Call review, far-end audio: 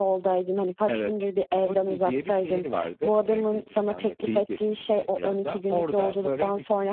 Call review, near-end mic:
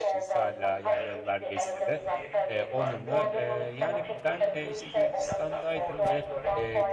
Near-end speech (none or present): present